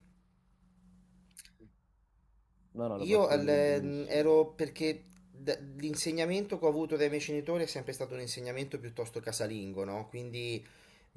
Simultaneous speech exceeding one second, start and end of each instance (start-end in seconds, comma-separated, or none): 3.0-4.3